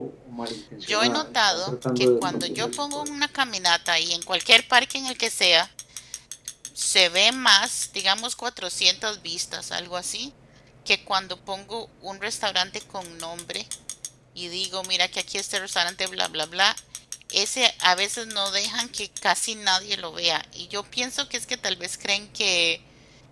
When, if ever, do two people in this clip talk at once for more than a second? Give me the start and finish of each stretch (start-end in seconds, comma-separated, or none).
0.9-3.1